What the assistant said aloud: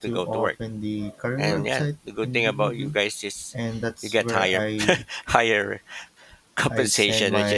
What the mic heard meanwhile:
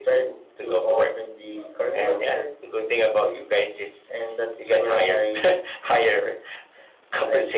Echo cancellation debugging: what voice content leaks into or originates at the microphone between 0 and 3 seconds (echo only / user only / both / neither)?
echo only